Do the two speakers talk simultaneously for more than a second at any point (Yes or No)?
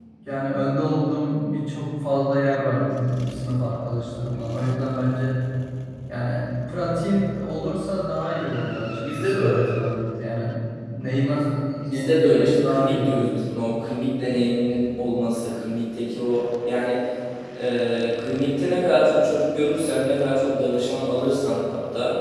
Yes